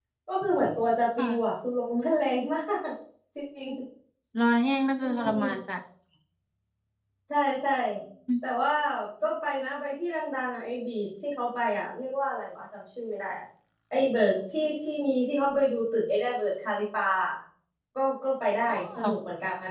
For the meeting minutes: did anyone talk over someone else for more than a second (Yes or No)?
No